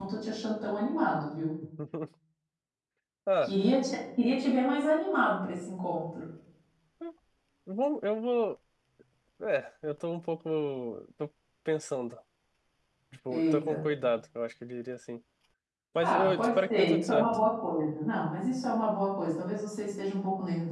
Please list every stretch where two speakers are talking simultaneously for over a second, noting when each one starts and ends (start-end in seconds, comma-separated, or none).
16.0-17.4